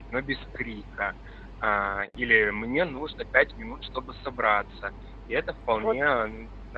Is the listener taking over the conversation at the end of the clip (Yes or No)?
No